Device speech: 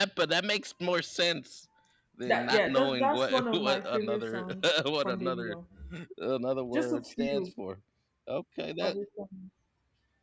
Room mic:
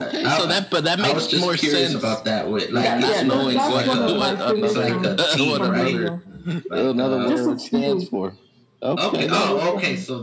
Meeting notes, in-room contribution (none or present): present